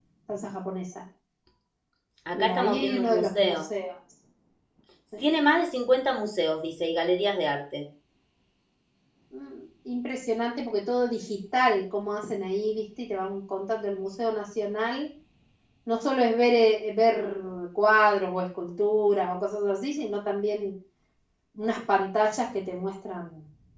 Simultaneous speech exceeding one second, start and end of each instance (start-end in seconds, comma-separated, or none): 2.3-3.6